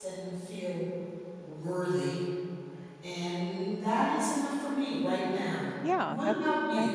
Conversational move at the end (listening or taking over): taking over